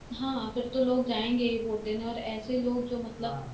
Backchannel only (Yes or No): Yes